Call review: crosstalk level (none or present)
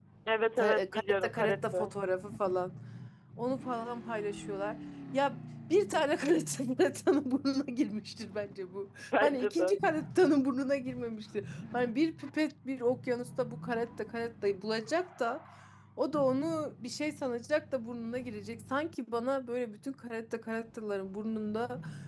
present